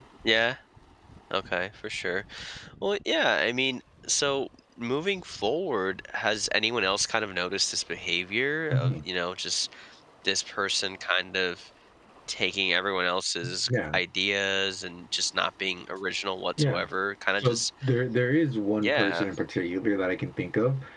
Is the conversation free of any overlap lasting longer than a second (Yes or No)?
Yes